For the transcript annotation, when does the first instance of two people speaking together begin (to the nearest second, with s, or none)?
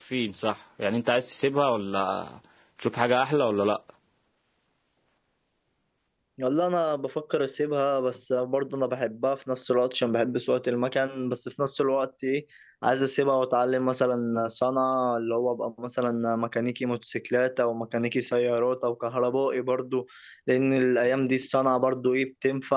none